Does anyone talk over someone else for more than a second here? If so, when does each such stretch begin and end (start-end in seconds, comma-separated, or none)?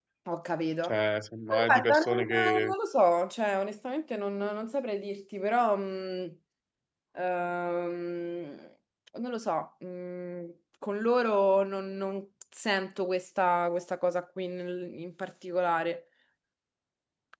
1.5-2.7